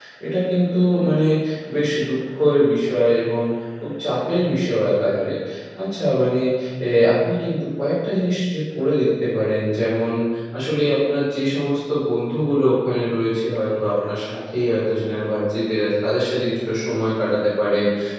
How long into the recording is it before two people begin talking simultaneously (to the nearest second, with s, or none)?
none